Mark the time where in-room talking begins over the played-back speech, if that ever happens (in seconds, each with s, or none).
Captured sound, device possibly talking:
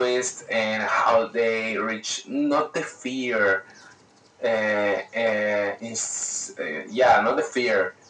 none